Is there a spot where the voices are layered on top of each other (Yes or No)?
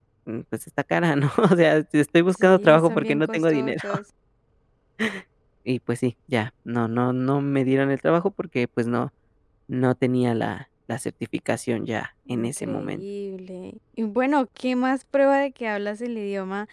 Yes